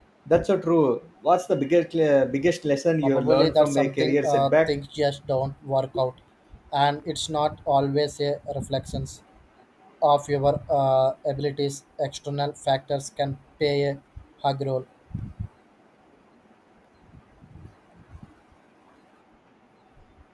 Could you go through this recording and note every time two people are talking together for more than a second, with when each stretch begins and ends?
3.0-4.7

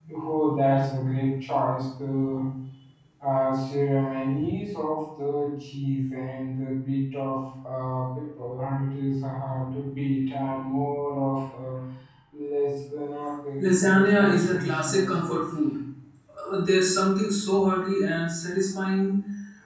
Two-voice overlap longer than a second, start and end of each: 13.6-15.4

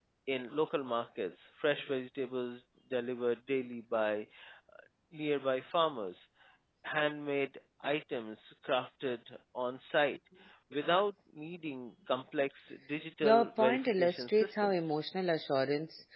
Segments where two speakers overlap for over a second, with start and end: 13.2-15.0

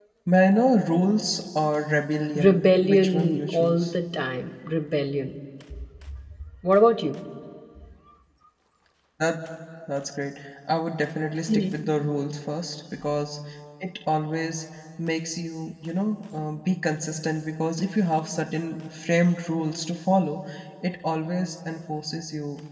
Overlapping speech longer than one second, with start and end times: 2.4-3.9

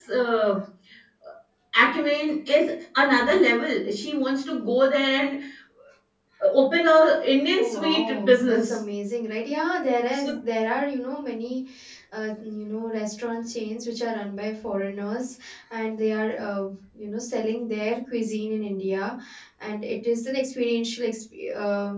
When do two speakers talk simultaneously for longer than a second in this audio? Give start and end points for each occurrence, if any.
7.5-8.8

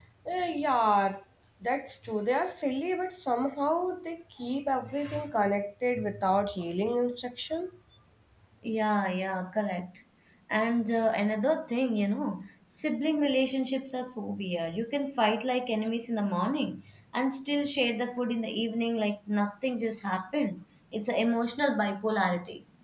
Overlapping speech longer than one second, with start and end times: none

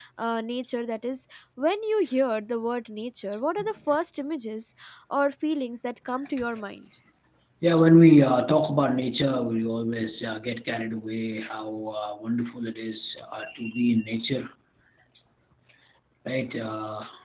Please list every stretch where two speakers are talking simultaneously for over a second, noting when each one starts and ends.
none

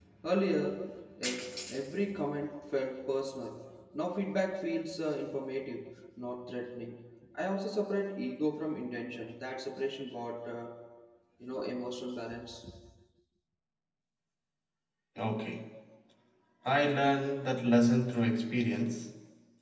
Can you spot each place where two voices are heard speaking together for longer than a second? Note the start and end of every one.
none

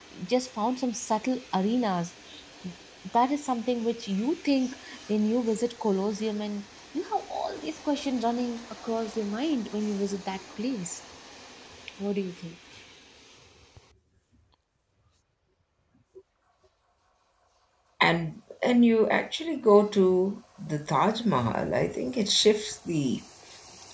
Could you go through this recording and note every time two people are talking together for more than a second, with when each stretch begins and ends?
none

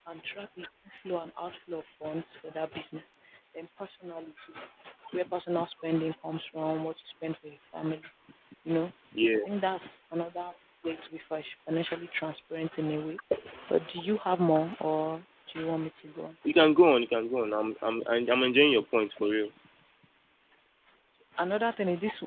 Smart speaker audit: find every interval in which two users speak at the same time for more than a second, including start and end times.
none

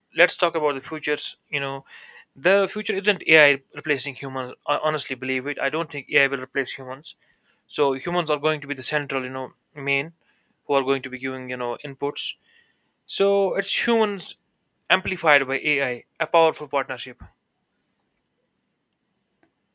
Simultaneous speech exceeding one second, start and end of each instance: none

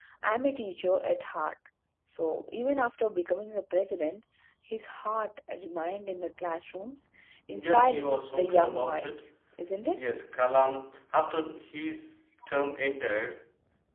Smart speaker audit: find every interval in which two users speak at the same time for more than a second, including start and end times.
7.5-9.2

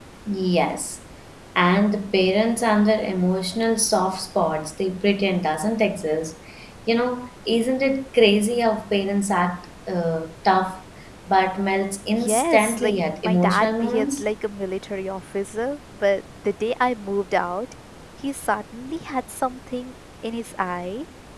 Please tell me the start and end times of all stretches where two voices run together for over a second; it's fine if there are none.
12.1-14.2

